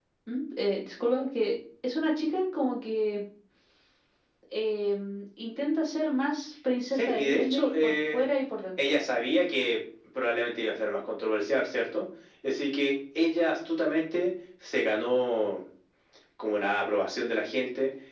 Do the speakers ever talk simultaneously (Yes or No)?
Yes